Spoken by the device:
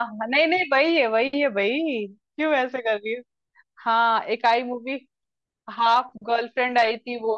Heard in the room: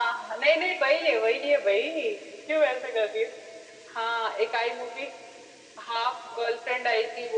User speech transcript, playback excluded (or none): none